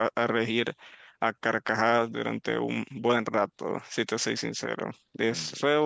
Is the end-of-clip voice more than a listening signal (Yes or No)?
No